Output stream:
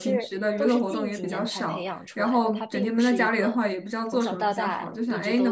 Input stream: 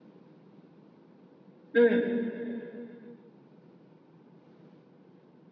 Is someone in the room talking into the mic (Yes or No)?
Yes